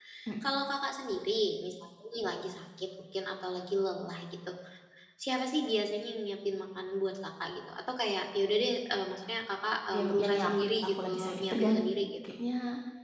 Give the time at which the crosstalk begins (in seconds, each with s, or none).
9.9 s